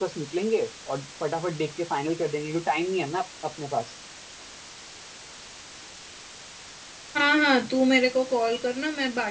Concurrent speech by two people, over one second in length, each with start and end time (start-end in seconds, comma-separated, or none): none